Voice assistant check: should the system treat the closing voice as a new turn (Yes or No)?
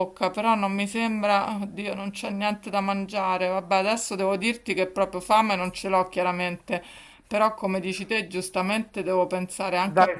Yes